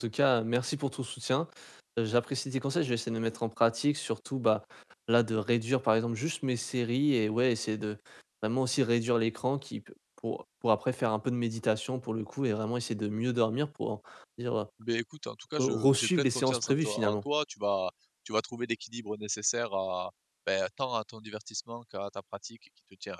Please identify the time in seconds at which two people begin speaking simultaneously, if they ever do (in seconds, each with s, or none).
15.6 s